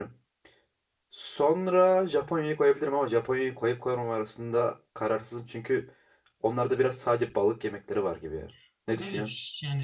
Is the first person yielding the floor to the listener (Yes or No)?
Yes